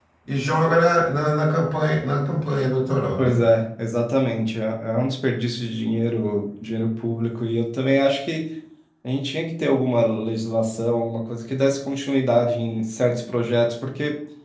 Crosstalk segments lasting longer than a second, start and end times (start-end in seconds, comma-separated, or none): none